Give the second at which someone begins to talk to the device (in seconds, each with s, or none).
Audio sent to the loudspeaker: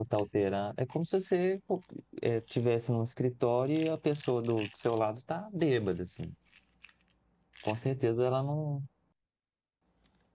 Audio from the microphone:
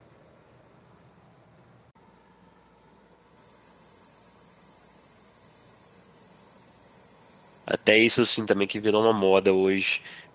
7.6 s